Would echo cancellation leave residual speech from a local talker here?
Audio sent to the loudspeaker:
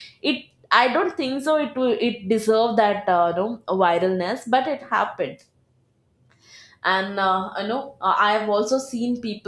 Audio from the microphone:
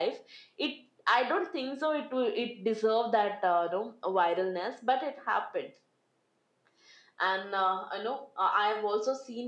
No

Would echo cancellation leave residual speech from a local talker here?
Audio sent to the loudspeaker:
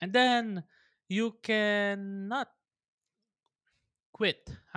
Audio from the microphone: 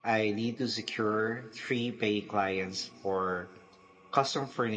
Yes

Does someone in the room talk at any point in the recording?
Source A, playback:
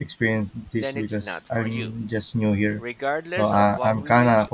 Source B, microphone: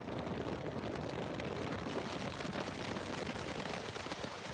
No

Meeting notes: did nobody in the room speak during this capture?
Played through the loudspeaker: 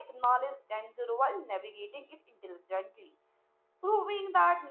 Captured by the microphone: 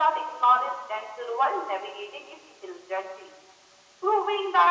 Yes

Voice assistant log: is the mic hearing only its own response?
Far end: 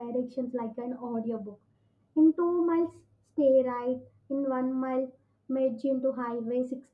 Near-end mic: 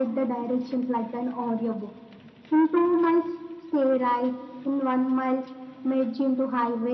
Yes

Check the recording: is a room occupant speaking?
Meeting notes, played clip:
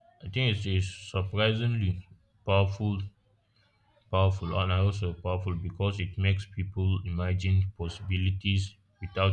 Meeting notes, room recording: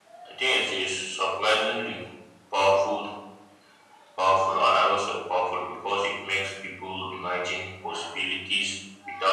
No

